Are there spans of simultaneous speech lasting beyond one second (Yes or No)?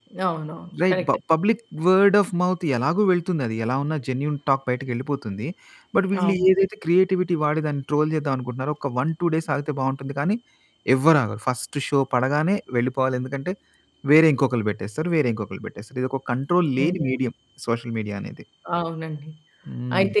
No